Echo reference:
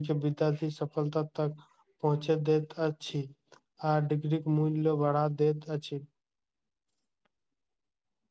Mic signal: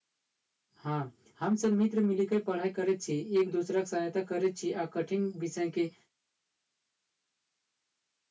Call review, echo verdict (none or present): none